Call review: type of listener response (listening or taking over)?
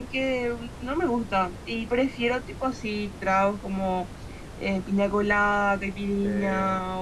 listening